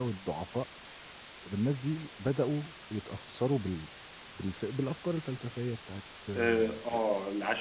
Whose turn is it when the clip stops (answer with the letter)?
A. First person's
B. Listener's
B